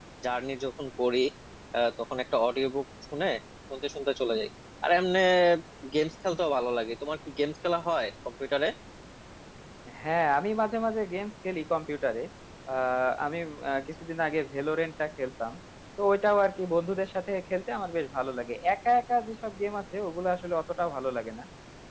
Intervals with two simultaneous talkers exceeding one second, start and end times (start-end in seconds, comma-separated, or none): none